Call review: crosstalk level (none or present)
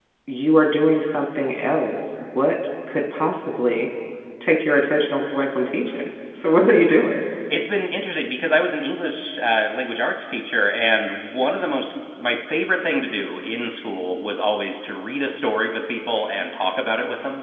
none